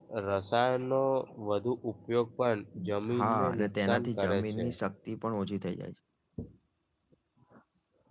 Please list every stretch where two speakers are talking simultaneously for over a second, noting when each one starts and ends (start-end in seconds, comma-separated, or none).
3.2-4.7